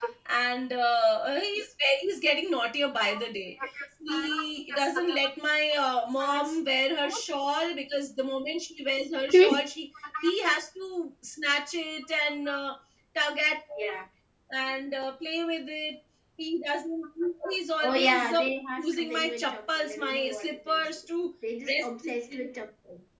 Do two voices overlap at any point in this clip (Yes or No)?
Yes